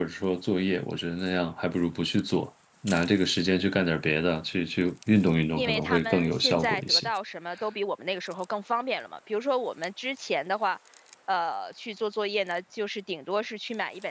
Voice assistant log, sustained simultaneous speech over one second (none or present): present